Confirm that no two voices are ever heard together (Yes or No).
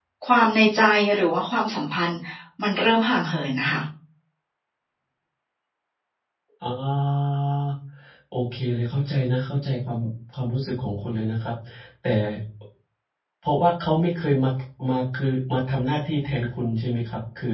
Yes